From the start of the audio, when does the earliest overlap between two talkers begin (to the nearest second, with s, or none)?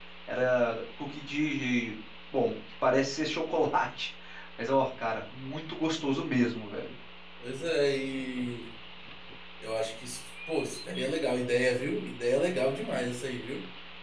none